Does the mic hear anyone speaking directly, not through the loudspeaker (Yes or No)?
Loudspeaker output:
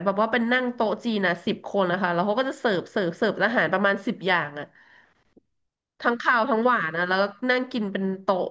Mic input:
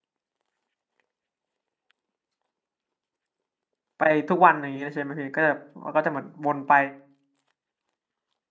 Yes